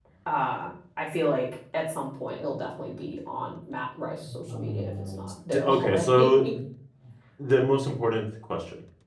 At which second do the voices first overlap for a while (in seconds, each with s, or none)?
4.3 s